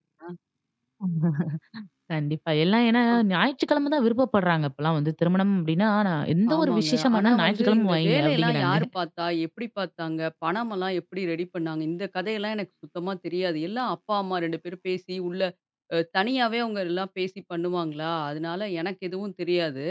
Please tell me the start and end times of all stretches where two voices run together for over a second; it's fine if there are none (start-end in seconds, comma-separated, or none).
6.6-8.8